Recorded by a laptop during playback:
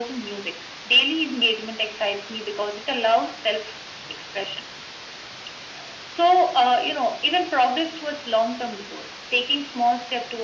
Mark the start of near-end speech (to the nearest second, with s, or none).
none